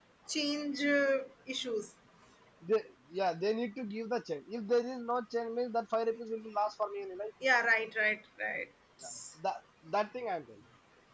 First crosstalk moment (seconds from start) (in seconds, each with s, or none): none